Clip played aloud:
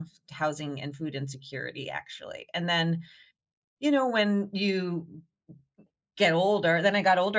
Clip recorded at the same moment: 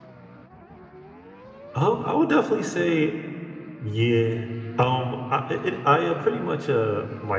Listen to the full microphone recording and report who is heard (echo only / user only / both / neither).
user only